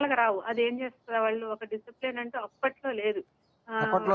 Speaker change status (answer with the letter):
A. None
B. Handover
A